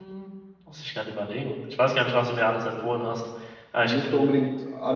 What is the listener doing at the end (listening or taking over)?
taking over